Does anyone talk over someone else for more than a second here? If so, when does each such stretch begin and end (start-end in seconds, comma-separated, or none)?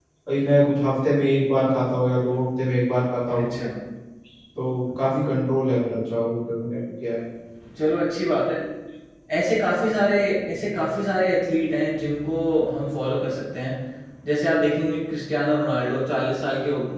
none